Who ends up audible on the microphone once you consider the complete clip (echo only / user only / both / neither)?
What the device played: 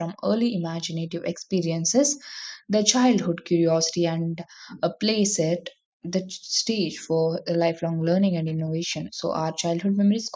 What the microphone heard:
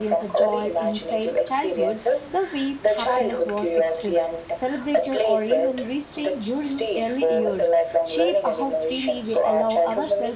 both